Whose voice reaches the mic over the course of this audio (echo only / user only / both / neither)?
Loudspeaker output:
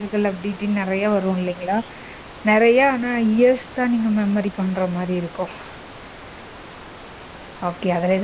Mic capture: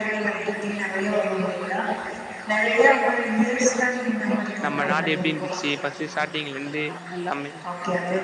both